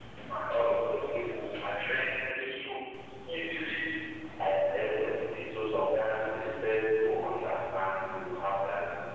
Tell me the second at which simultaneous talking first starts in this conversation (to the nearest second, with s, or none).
none